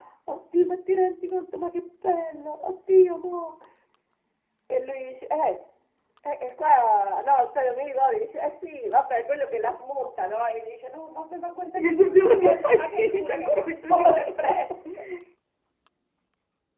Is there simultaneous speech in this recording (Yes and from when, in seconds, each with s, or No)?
Yes, from 11.8 s